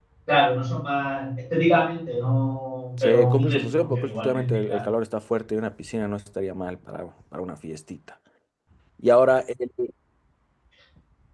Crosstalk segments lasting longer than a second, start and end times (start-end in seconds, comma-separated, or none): 3.0-4.8